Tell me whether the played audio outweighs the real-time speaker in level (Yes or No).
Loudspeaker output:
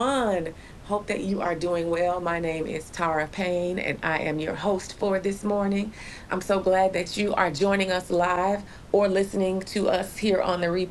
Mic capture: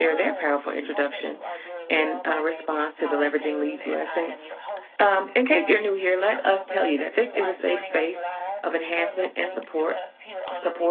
No